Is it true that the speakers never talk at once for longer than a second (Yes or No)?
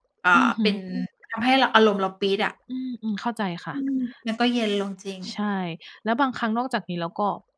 Yes